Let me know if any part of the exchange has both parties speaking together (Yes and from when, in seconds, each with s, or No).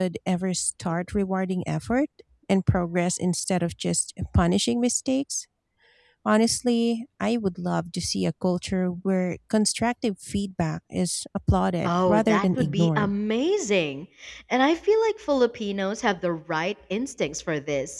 Yes, from 11.8 s